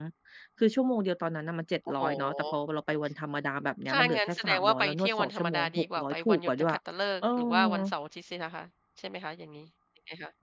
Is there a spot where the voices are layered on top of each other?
Yes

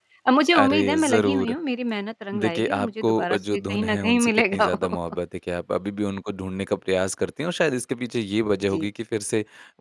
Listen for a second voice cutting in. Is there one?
Yes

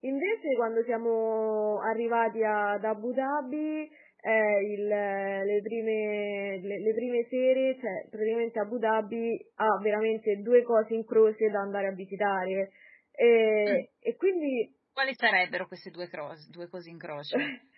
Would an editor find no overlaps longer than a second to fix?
Yes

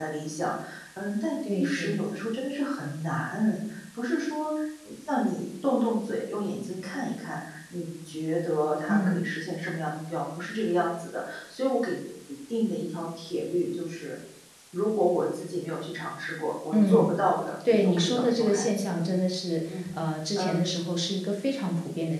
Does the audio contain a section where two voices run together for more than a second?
Yes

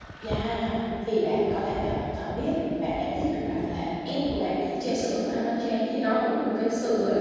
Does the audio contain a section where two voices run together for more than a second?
No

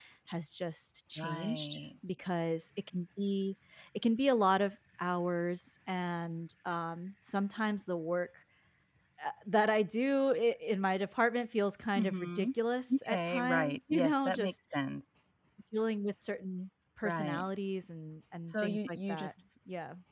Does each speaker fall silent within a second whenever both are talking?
No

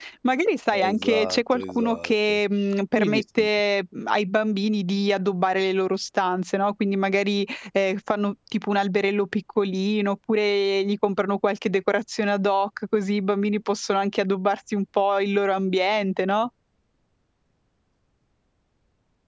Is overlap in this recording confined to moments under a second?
No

